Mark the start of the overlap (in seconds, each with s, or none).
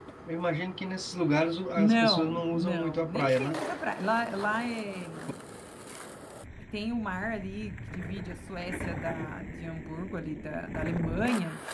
1.8 s